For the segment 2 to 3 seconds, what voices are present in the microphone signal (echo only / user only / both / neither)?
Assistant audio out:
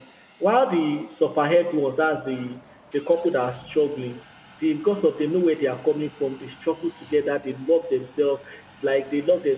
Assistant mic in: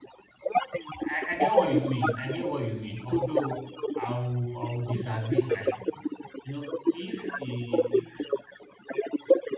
both